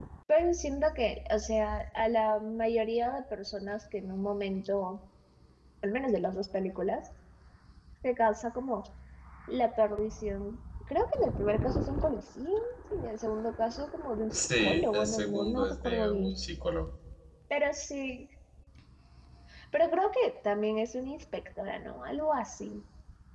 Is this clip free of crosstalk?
No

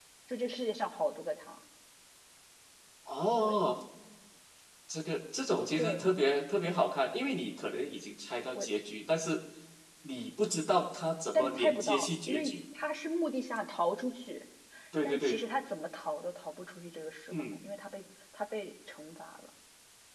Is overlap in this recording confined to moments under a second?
No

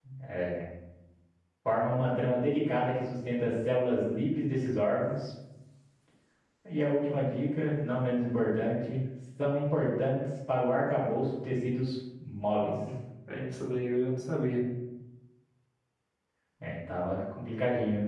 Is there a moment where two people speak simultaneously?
No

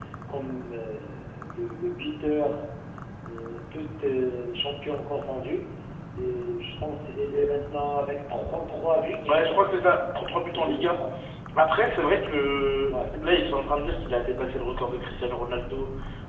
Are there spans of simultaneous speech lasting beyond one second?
No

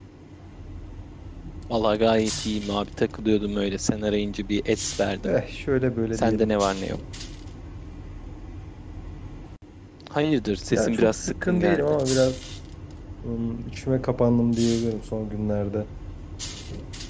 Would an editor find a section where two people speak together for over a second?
Yes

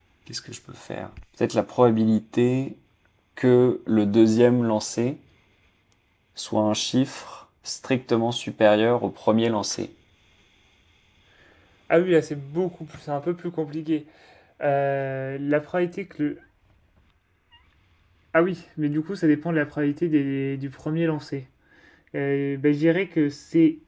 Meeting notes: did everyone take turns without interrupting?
Yes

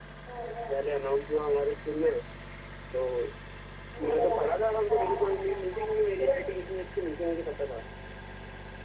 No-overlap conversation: No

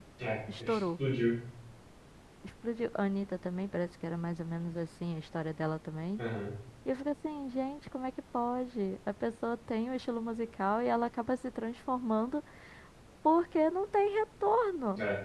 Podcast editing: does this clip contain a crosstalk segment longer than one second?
No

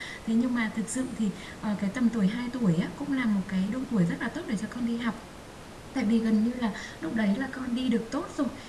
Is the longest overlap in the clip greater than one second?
No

